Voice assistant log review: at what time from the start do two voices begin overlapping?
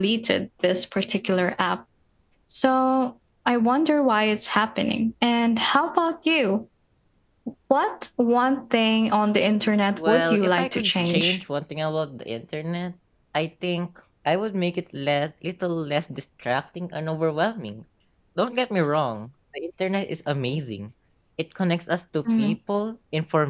9.9 s

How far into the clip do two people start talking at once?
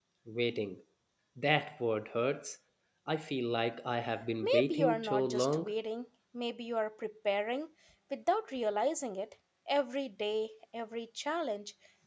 4.4 s

